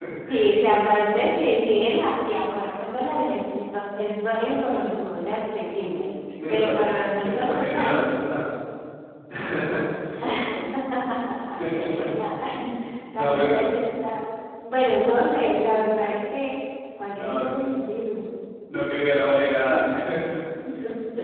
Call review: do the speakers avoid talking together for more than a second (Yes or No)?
No